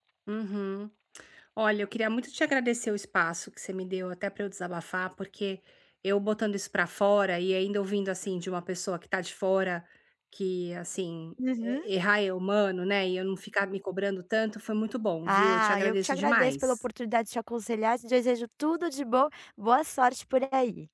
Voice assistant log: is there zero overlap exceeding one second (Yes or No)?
No